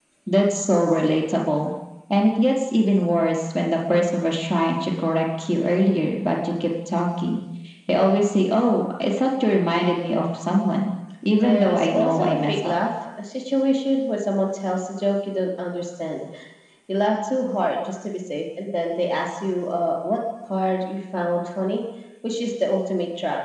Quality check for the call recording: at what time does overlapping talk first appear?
11.4 s

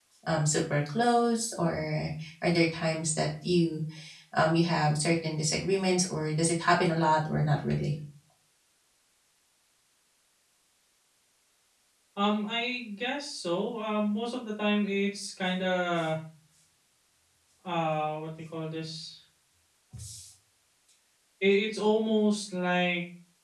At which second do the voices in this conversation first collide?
none

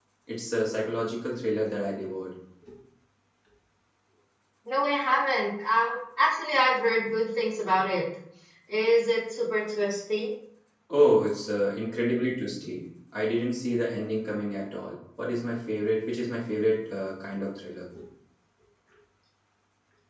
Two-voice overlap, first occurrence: none

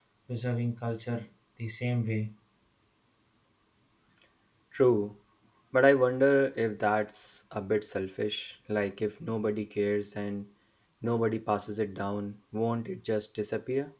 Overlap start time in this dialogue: none

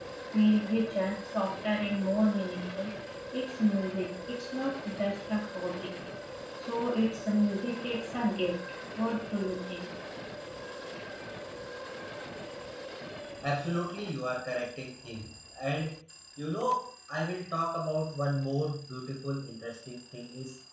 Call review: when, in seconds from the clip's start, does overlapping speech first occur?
none

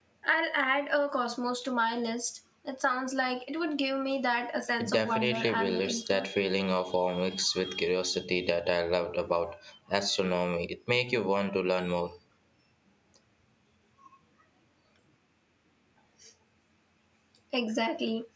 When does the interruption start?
4.8 s

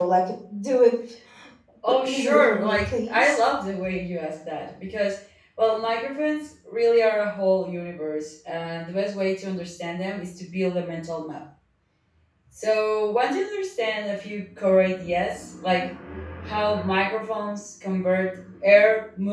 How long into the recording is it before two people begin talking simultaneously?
1.8 s

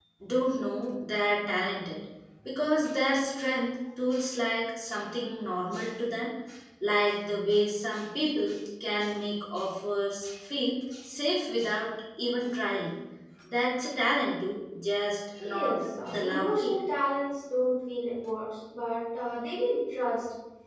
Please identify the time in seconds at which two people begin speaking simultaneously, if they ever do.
15.4 s

